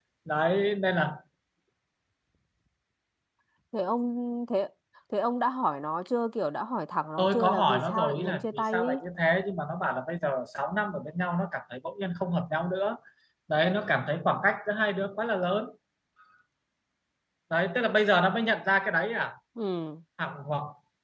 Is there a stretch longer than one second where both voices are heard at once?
Yes, from 7.2 s

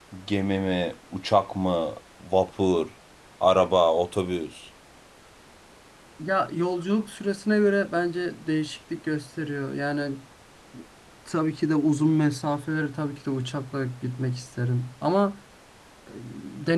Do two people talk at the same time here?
No

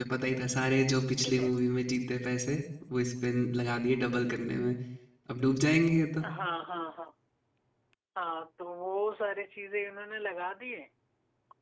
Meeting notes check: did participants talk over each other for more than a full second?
No

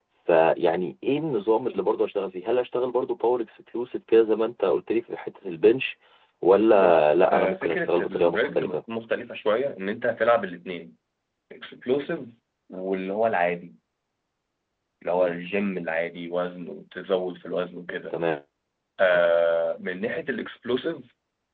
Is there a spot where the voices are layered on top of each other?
Yes, from 6.7 s

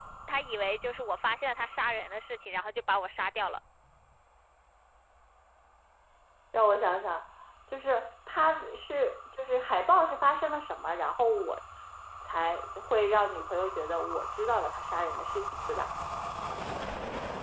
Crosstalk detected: No

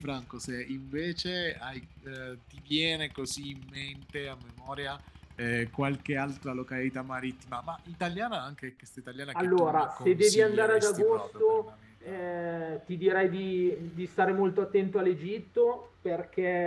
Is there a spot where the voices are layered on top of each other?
Yes, from 9.3 s

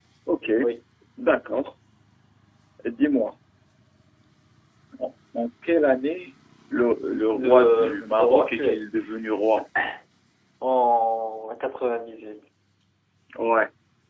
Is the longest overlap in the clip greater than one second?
Yes, from 7.3 s

